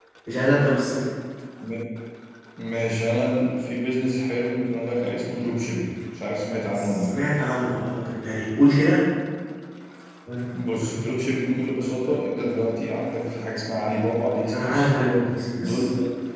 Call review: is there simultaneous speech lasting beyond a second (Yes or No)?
No